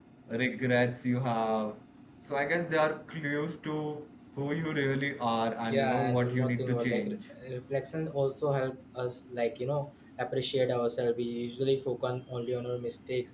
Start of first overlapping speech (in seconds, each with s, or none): 5.7 s